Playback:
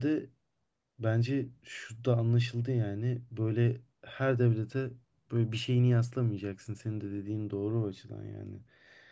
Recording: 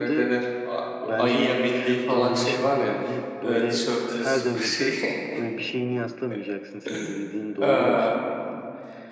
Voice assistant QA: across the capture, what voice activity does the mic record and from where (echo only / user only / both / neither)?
both